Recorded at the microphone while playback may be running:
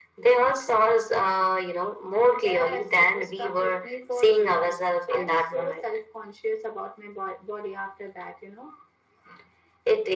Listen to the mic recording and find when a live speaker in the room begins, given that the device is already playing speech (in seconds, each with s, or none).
none